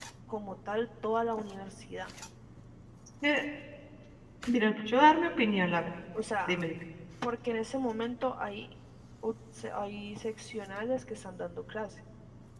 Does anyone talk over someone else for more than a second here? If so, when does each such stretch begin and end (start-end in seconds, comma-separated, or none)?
none